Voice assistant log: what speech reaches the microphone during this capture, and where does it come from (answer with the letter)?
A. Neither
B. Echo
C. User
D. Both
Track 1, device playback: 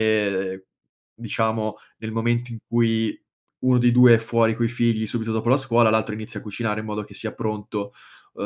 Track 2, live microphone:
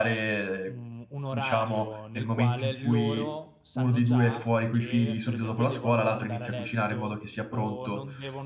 D